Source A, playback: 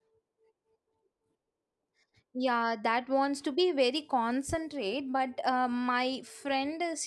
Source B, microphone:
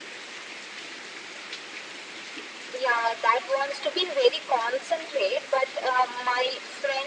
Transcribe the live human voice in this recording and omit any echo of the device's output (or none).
none